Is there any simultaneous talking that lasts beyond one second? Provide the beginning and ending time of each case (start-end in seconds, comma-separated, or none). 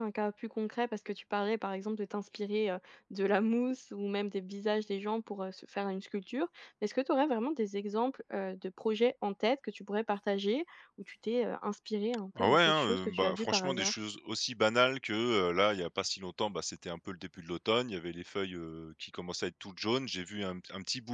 12.4-14.0